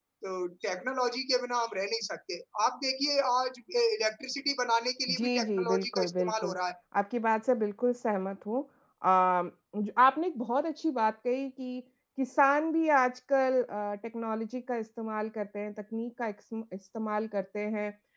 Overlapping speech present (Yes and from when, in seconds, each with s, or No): Yes, from 5.1 s